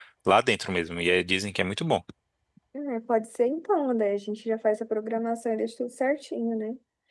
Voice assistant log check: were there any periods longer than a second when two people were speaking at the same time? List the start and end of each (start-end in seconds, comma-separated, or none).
none